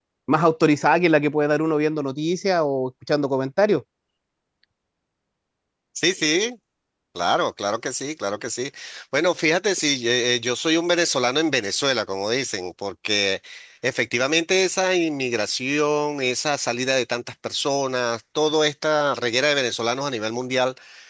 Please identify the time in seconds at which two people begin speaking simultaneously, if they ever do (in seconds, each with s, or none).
none